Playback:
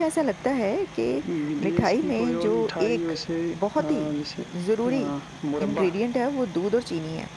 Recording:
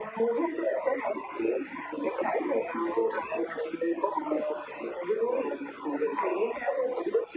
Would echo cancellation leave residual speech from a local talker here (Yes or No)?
No